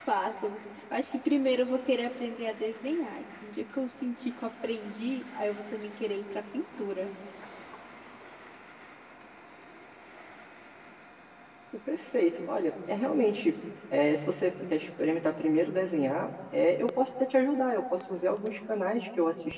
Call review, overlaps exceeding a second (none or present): none